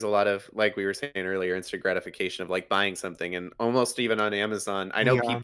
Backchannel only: Yes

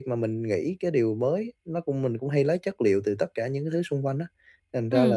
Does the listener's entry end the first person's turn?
No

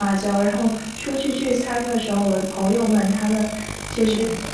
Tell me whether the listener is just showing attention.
Yes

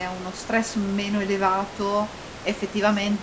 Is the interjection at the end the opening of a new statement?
No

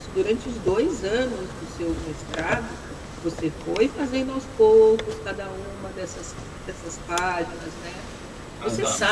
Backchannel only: Yes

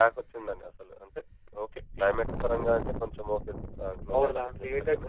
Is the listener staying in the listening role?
No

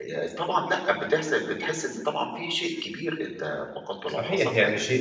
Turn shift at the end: Yes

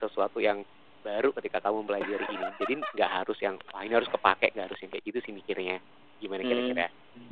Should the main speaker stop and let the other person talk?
Yes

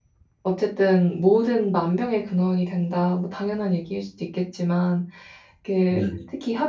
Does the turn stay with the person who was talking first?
Yes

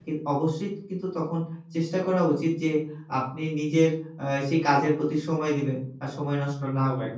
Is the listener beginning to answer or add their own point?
Yes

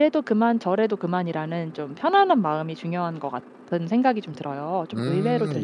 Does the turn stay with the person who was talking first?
No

